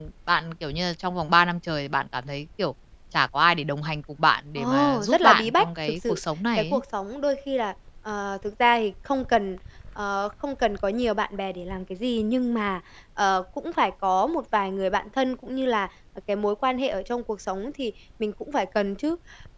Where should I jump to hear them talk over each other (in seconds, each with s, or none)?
4.6 s